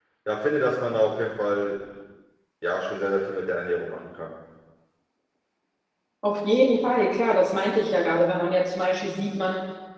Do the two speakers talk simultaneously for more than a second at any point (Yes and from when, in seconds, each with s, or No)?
No